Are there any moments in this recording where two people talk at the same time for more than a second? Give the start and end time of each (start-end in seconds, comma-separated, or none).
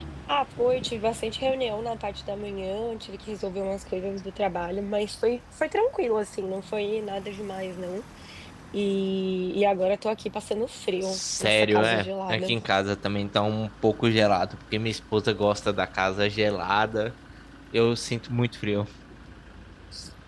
11.0-12.5